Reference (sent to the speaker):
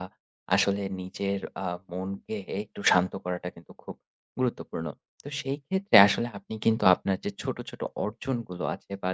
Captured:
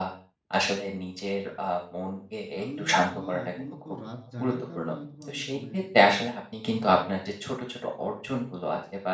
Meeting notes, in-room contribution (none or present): present